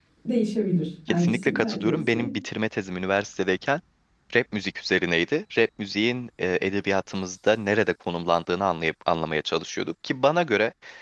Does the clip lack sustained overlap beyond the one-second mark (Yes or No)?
No